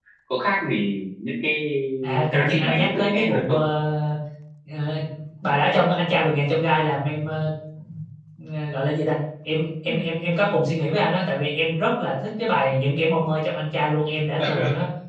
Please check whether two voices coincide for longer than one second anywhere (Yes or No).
Yes